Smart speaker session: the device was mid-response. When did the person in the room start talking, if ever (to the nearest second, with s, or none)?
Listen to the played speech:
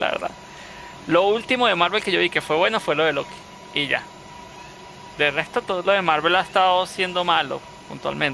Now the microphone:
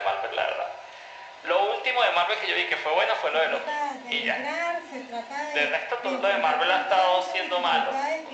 3 s